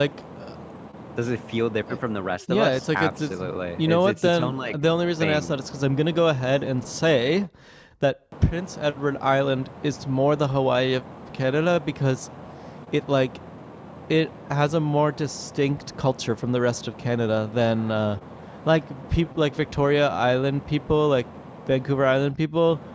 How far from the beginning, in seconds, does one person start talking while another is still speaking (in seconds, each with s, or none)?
2.5 s